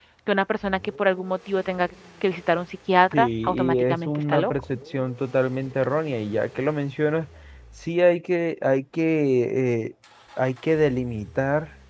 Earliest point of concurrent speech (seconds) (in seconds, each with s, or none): 3.1 s